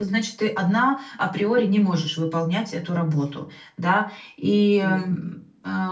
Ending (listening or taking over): listening